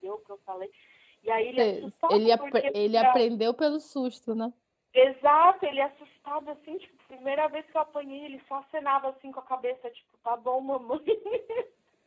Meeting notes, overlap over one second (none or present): present